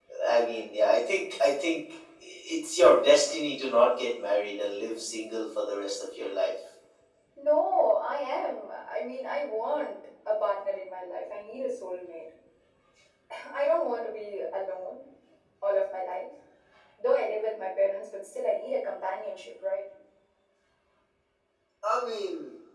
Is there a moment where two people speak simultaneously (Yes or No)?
No